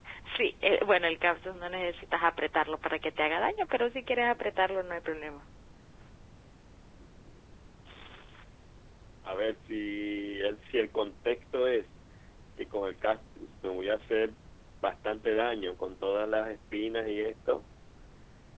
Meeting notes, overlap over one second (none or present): none